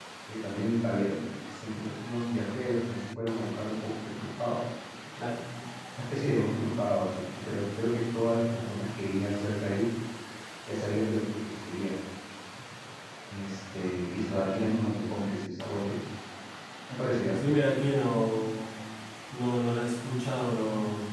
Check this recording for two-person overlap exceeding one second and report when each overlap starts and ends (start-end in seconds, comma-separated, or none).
none